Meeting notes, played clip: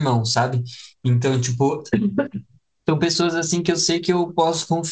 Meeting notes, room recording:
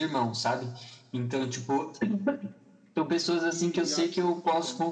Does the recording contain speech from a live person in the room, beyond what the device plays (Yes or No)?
Yes